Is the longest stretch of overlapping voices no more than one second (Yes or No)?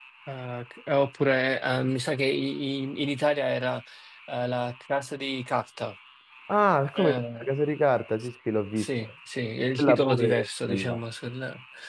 No